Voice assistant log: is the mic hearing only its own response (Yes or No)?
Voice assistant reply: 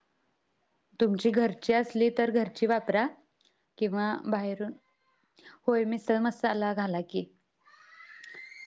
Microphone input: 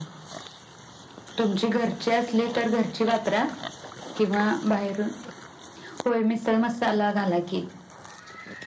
Yes